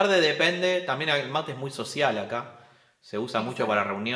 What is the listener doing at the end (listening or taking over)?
listening